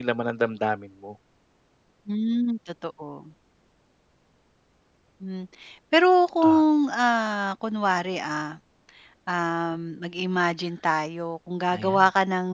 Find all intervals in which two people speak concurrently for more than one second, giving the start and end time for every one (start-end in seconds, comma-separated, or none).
none